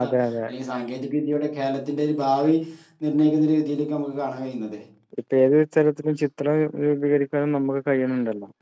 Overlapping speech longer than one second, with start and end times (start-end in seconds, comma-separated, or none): none